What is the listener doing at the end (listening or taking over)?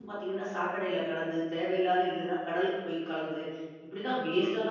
listening